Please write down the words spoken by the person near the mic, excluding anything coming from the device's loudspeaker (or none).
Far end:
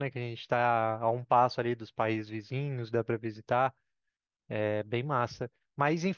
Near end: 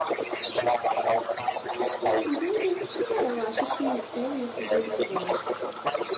Entendi. É, eu acho que eu ia sugerir agora.